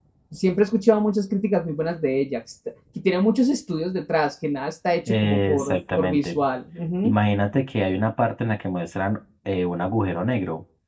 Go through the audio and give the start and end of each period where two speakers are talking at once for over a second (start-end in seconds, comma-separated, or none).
5.1-6.4